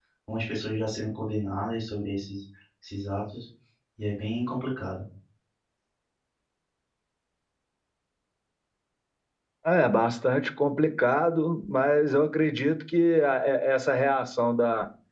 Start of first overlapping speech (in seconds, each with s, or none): none